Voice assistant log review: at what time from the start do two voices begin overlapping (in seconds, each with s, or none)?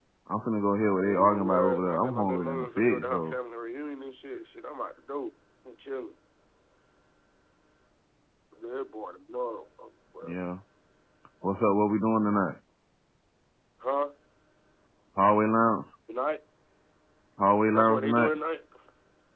1.0 s